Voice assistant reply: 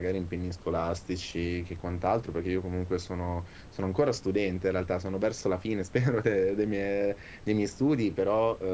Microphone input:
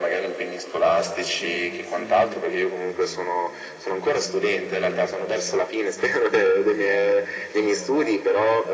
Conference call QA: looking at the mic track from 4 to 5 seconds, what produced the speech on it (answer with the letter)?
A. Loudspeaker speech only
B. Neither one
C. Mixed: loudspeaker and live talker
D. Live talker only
C